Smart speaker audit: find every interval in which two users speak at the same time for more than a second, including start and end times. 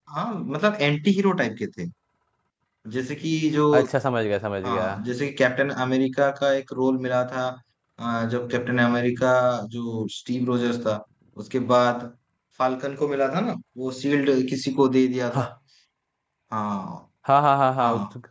none

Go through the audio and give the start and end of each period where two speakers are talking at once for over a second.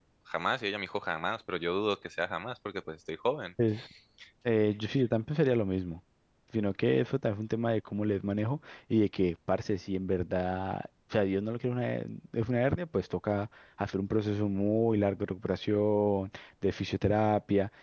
none

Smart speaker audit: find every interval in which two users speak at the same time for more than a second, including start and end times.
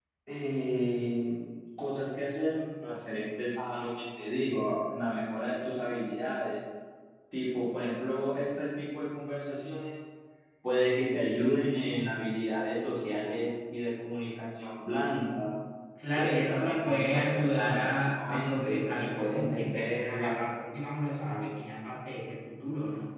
16.1-20.4

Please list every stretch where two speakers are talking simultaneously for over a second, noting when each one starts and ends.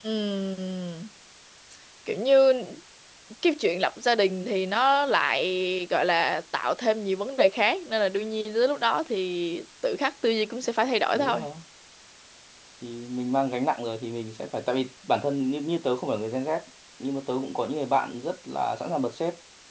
none

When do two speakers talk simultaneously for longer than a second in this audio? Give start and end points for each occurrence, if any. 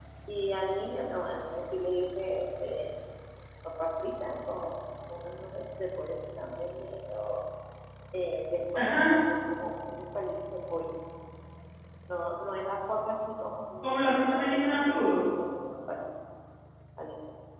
13.8-15.2

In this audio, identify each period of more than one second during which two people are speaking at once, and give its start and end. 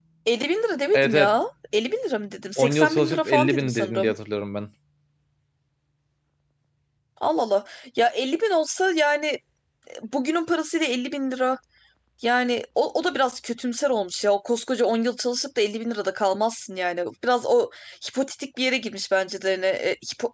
2.6-4.1

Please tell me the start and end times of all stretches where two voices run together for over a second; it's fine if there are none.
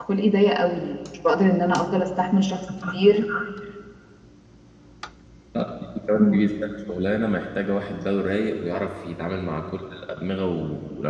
none

